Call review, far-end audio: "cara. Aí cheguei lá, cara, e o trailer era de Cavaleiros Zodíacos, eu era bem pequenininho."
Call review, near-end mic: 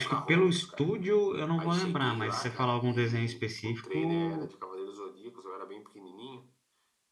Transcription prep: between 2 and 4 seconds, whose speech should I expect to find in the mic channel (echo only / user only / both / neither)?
both